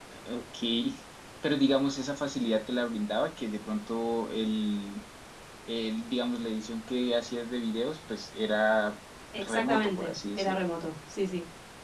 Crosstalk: present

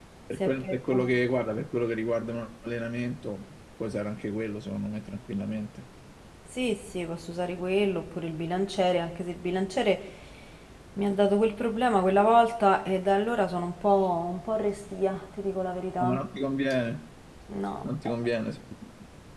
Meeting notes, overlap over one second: none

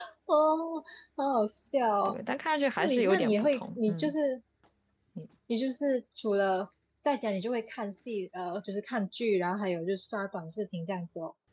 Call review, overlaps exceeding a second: present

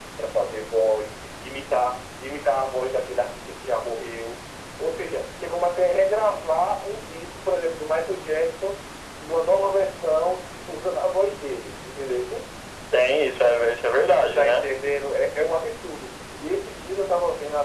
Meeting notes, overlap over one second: none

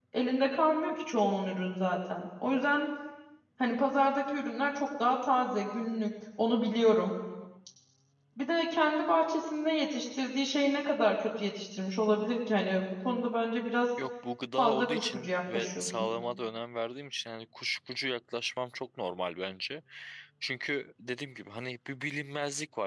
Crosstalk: present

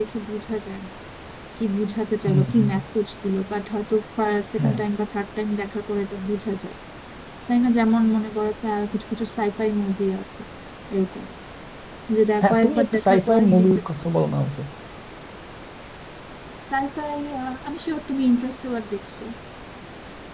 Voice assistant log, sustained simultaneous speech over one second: present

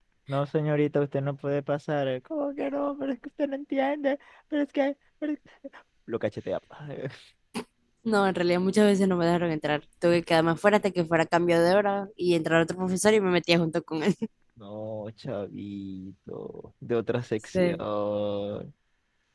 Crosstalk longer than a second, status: none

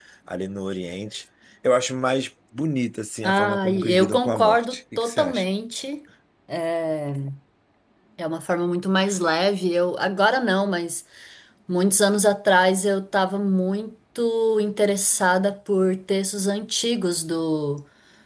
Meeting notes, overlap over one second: present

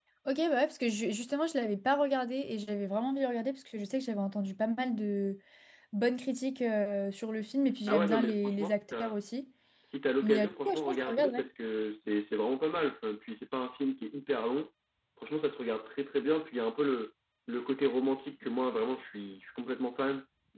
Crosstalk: present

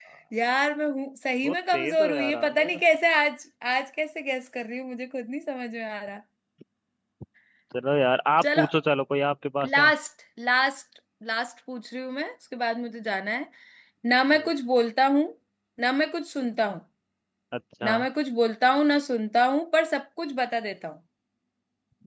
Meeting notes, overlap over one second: present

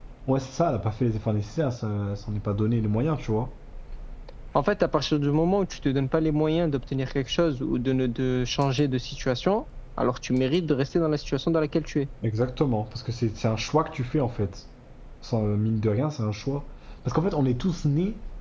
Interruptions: none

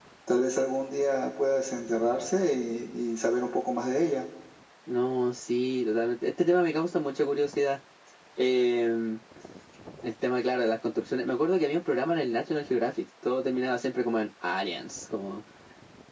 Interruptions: none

